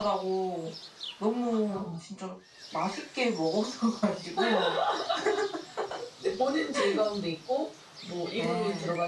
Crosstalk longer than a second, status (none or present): none